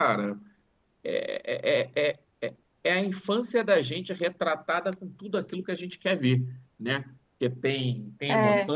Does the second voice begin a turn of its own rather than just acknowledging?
No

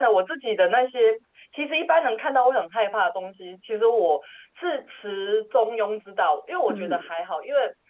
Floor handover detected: No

